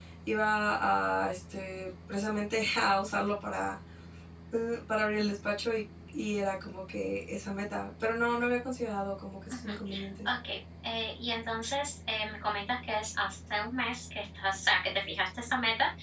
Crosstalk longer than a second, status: none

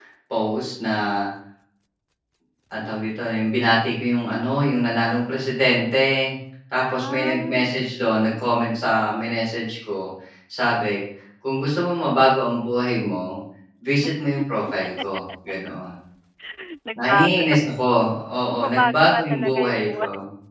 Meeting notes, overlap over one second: present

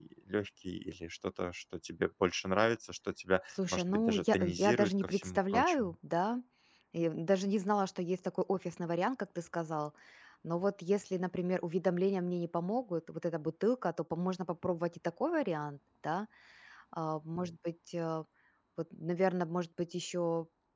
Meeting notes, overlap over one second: present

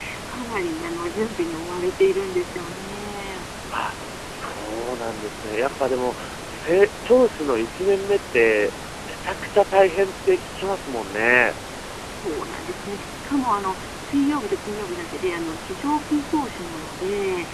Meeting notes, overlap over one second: none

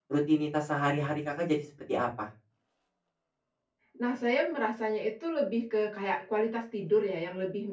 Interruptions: none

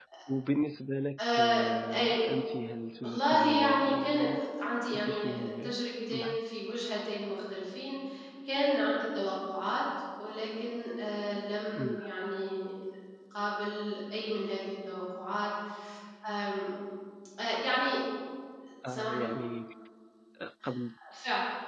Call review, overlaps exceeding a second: present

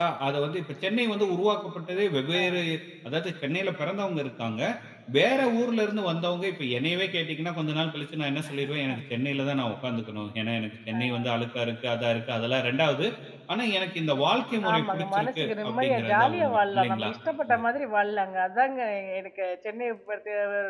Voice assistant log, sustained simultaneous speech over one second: present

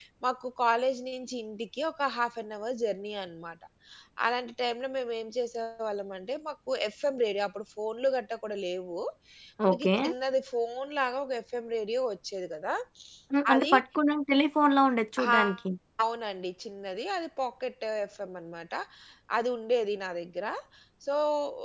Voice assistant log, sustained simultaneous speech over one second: none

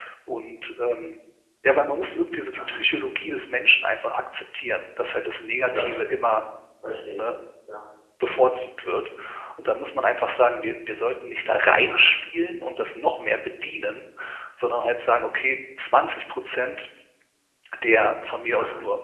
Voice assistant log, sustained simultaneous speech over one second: none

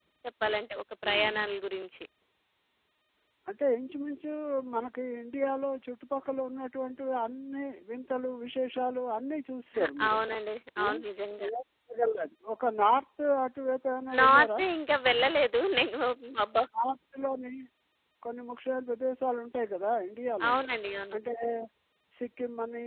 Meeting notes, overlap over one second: none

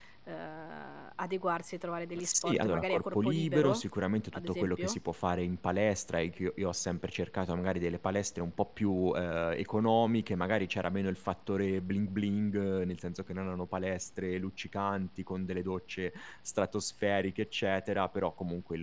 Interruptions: present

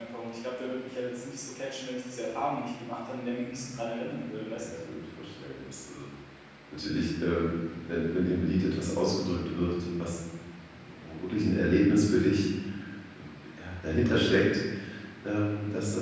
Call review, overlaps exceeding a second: none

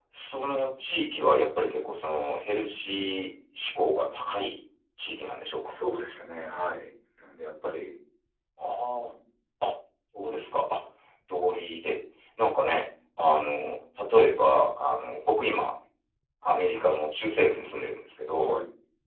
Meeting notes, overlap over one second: none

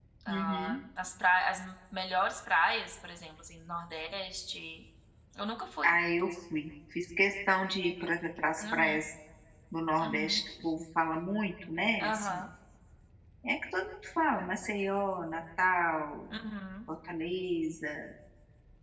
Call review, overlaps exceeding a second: none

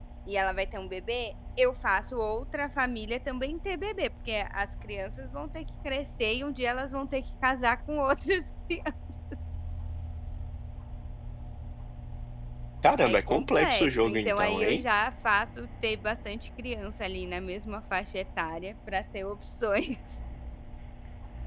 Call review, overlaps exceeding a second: present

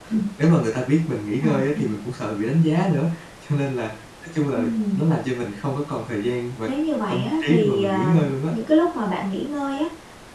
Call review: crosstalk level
present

